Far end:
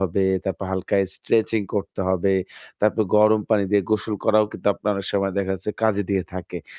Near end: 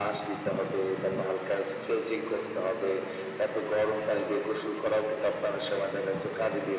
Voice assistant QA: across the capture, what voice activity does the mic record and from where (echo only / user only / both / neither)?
echo only